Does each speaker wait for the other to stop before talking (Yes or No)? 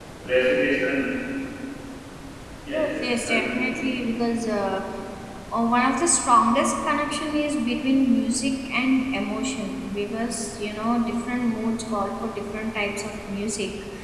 No